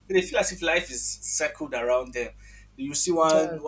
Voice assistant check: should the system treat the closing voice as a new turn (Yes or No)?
No